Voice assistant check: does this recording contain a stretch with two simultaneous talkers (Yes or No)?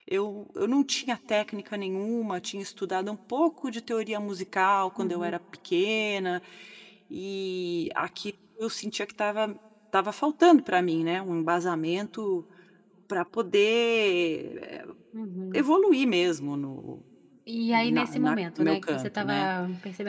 Yes